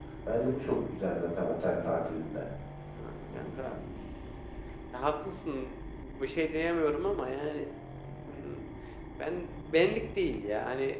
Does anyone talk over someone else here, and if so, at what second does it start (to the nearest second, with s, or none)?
none